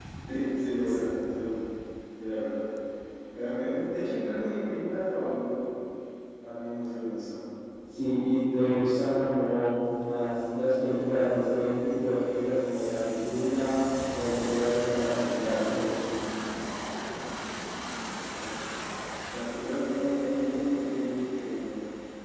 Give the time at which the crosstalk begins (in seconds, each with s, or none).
none